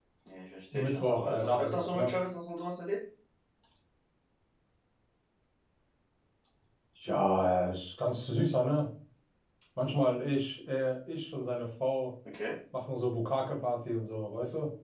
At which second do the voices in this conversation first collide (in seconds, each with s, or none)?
0.7 s